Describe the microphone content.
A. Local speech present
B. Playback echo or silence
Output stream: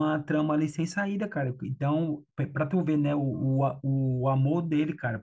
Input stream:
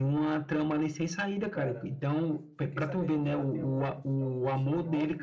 A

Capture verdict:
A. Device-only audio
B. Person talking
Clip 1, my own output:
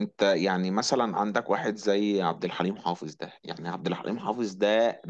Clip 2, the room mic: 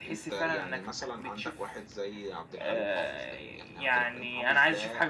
B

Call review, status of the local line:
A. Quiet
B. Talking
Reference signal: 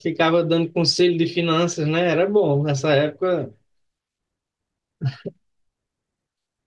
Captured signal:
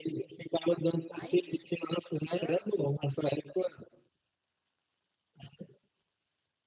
B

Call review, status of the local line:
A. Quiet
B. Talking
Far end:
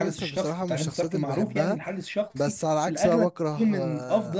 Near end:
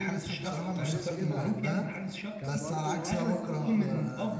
B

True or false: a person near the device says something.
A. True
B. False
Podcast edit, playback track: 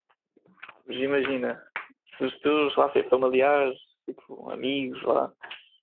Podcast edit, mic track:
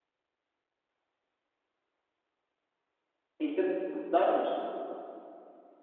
A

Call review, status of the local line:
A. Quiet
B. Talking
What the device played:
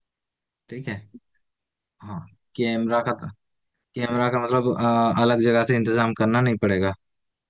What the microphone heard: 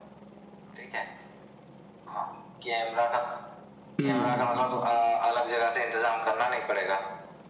B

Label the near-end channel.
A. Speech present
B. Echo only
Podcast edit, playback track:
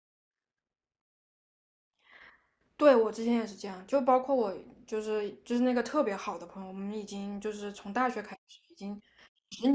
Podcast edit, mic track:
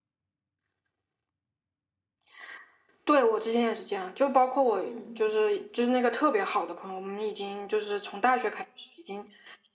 A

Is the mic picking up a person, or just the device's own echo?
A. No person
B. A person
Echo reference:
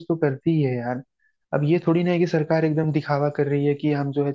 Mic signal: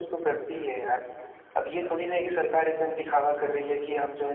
A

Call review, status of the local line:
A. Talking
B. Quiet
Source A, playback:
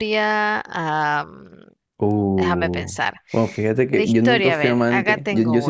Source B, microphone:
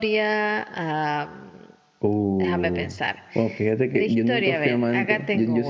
B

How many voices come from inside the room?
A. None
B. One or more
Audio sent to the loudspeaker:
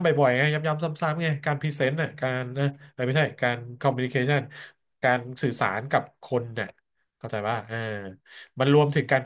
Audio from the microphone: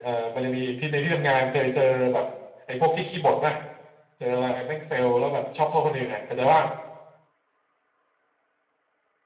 B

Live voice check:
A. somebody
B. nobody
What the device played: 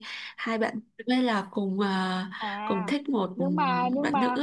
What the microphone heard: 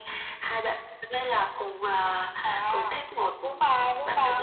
B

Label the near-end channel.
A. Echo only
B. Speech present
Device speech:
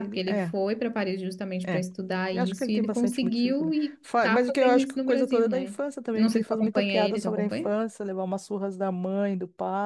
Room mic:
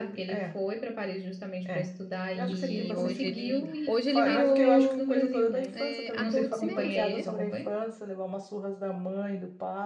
B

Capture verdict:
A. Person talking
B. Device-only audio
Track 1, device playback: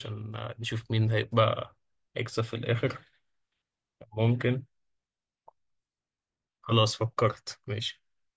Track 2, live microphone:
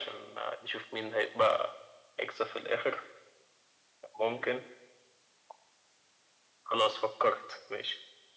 B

